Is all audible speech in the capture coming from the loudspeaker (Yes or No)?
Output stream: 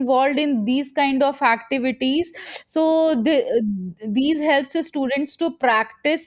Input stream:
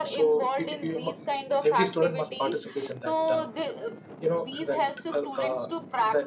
No